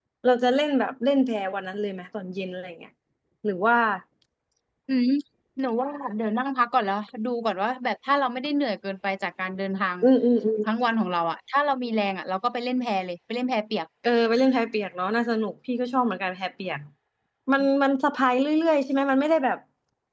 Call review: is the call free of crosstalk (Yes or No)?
Yes